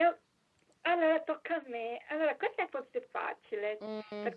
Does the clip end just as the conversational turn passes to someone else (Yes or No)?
No